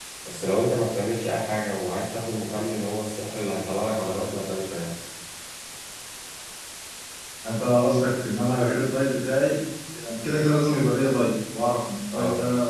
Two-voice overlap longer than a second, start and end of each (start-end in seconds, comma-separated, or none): none